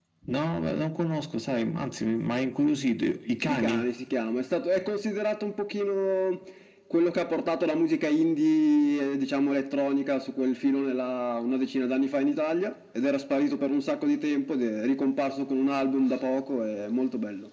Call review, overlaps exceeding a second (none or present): none